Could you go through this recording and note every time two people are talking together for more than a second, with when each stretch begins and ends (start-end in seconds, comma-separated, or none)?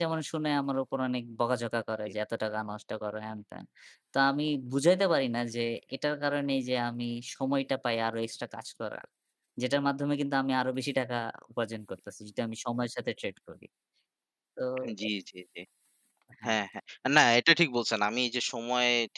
none